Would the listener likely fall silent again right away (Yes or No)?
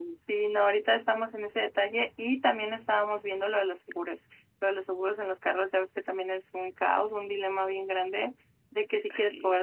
Yes